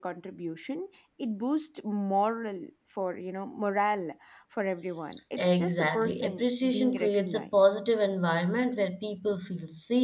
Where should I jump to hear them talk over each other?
5.4 s

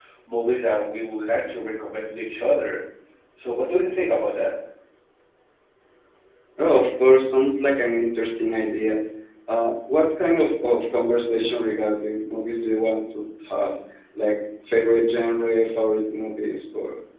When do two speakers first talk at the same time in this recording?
none

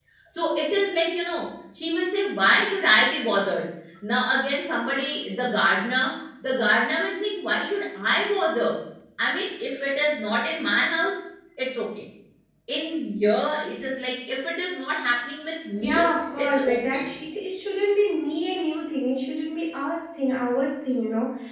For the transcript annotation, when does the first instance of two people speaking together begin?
15.8 s

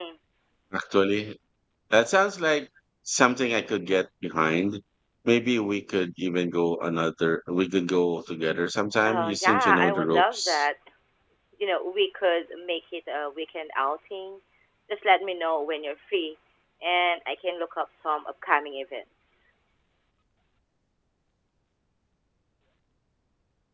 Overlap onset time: 9.1 s

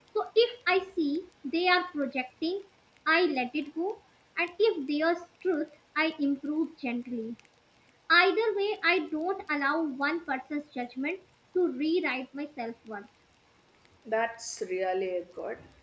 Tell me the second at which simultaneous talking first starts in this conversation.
none

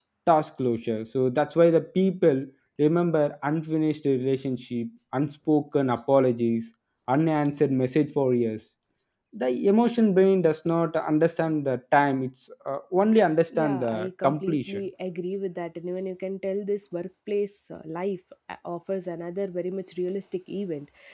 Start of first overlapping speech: 13.5 s

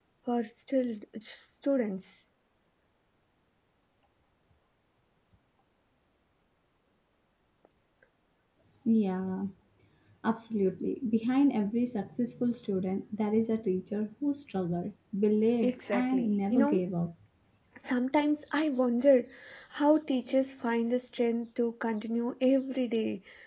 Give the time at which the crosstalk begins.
15.6 s

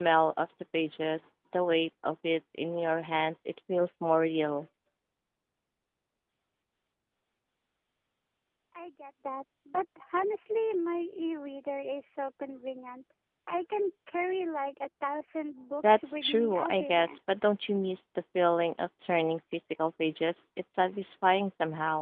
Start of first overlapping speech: 15.8 s

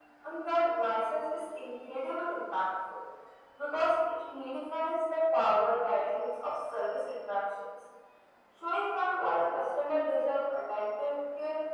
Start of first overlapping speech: none

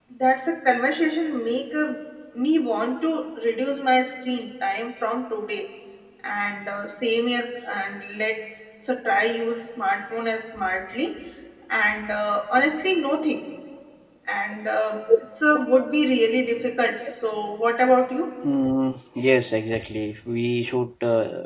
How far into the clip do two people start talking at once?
none

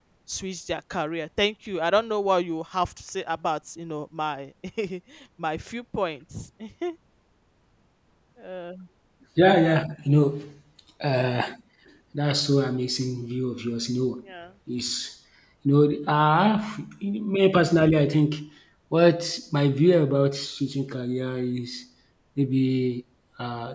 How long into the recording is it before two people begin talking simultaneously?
none

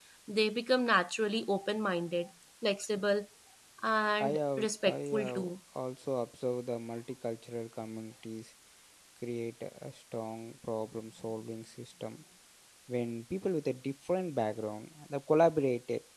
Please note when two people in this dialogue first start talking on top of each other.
4.2 s

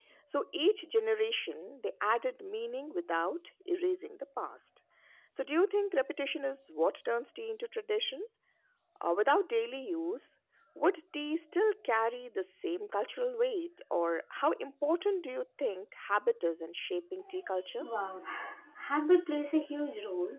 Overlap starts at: none

